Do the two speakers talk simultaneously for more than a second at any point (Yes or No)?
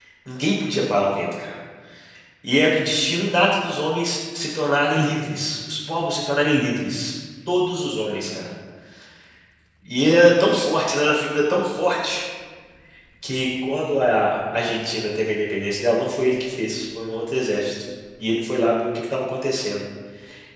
No